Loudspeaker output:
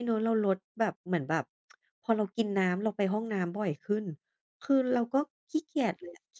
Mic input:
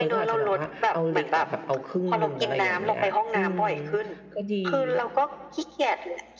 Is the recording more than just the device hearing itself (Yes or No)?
Yes